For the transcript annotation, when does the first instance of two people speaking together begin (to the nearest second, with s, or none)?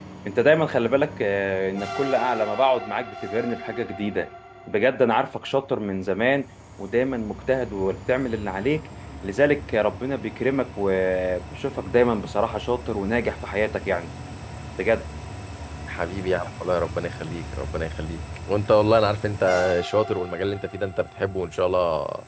none